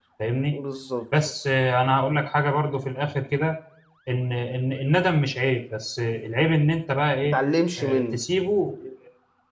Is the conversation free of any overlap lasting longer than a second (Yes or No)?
Yes